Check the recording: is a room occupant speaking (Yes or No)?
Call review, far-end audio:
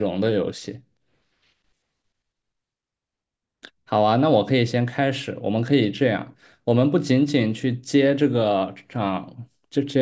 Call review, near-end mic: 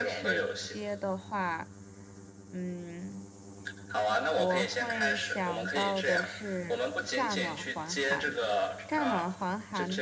Yes